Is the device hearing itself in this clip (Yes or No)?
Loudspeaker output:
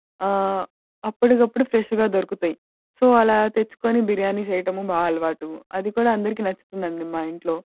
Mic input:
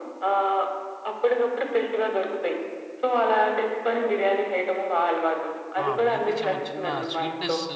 Yes